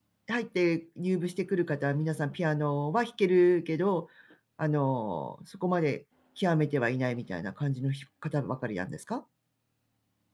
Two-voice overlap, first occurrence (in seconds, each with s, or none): none